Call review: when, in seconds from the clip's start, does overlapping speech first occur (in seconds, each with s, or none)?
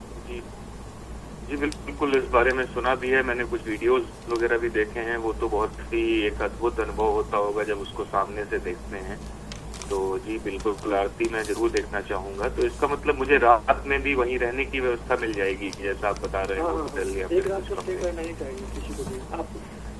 16.6 s